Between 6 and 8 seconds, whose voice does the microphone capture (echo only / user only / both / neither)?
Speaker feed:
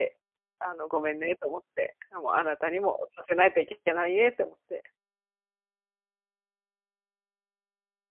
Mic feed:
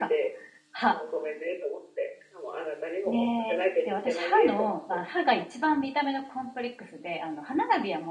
user only